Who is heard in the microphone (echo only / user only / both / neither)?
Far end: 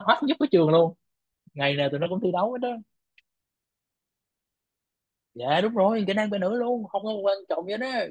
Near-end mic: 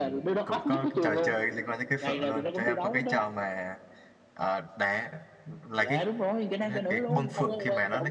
both